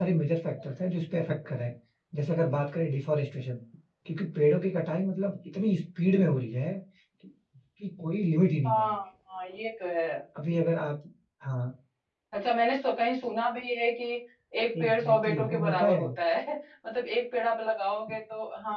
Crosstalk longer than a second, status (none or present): present